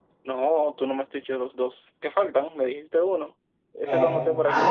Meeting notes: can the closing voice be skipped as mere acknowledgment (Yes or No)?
No